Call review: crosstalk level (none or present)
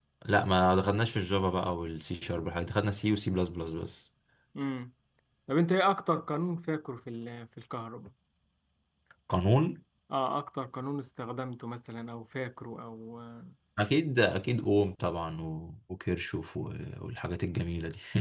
none